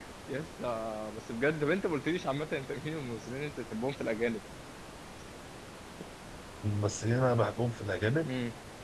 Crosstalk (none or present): none